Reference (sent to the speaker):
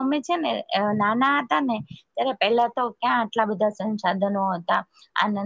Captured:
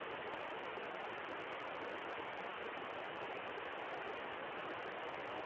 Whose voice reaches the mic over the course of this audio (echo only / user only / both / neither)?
neither